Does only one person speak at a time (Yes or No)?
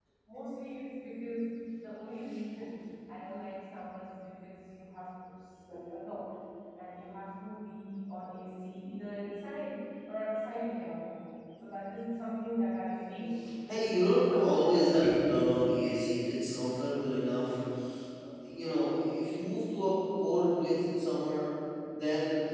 No